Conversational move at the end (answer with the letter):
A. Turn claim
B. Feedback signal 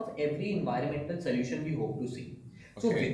B